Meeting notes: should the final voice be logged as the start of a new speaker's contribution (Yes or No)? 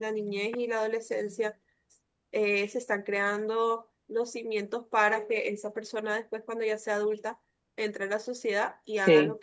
No